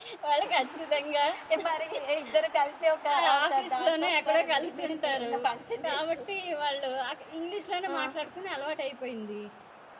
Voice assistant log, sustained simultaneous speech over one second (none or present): present